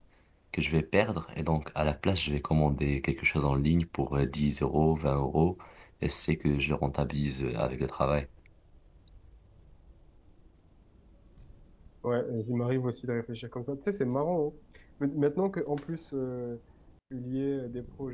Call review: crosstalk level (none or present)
none